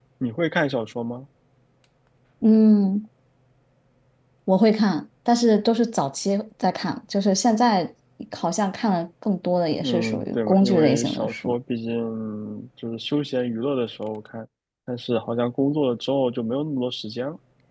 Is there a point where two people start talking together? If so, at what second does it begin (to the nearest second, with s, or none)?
10 s